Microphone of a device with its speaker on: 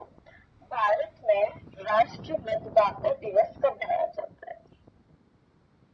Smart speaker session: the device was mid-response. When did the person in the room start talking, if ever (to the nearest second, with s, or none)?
none